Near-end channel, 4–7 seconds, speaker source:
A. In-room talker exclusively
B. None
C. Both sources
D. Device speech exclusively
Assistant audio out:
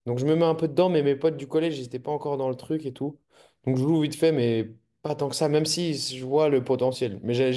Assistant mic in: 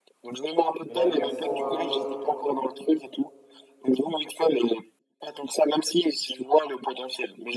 D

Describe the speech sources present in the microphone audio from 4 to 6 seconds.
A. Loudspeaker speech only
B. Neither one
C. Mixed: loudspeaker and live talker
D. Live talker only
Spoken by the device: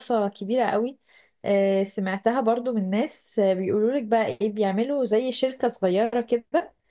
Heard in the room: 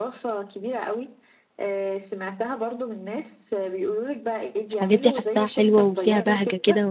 C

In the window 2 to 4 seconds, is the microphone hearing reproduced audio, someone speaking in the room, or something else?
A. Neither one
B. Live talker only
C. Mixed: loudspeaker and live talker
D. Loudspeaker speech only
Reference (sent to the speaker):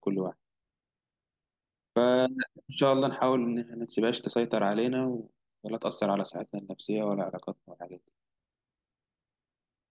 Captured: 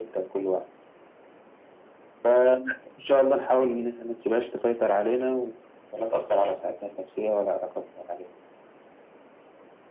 D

